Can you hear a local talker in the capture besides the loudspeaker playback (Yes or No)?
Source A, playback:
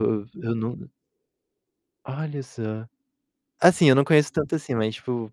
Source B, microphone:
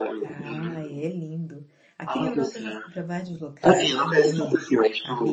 Yes